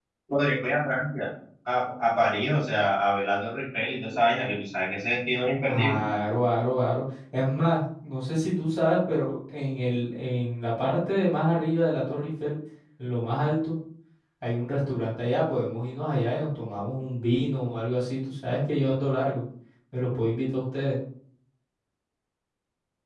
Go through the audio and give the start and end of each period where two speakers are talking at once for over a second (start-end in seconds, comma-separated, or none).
none